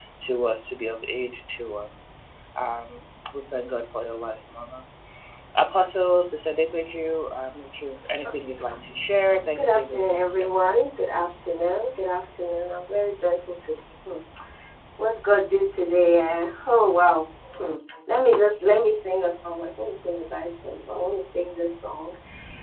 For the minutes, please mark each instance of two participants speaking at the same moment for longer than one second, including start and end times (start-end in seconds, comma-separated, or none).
9.6-10.8